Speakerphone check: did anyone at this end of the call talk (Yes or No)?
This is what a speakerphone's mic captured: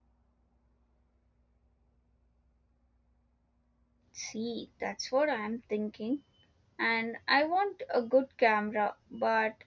Yes